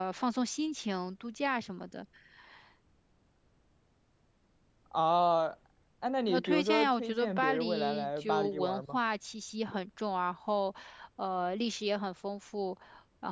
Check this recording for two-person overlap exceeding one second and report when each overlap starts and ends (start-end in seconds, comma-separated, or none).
6.3-9.0